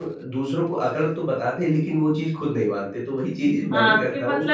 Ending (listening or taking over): taking over